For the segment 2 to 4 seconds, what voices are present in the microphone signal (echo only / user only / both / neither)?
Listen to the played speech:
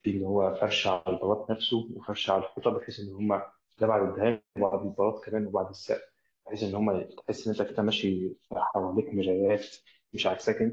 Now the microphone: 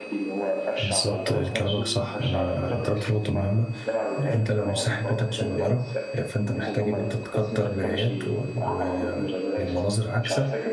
both